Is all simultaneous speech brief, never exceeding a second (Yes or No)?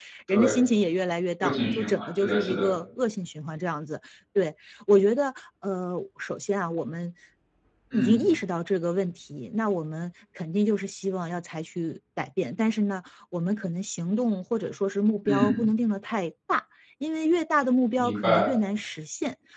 No